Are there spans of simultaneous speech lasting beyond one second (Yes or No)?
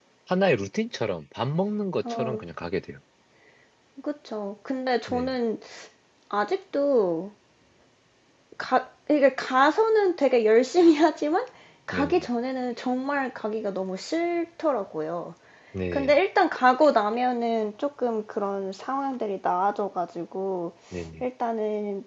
No